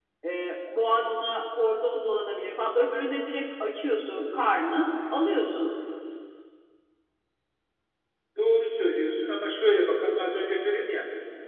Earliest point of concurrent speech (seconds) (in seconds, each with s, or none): none